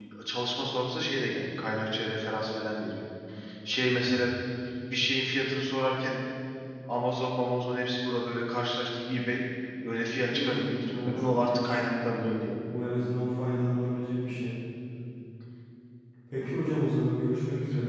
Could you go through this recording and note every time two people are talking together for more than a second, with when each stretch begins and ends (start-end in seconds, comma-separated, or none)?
10.2-11.8